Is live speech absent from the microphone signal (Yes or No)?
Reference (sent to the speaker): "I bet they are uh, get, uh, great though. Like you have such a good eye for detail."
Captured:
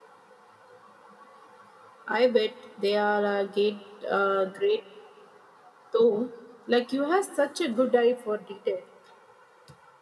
Yes